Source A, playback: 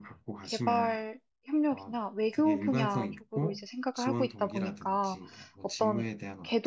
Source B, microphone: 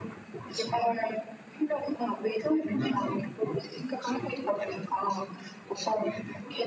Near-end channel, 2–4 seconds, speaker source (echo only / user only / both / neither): echo only